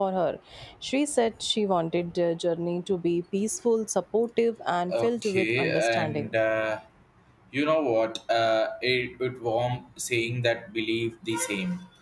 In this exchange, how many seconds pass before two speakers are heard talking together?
4.9 s

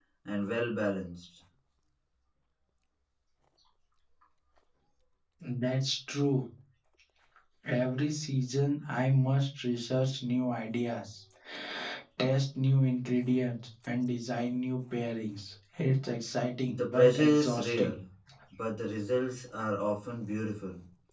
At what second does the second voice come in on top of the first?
16.7 s

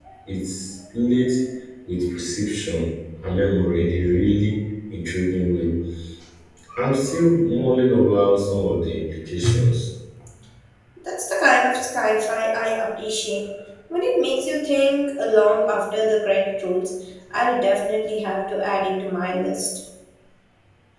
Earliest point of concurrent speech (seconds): none

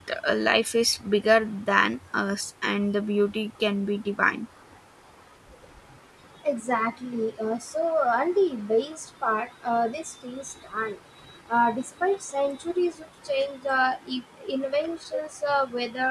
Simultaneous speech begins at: none

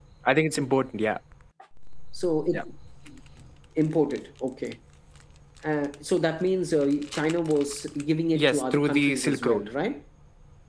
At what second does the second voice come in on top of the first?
8.3 s

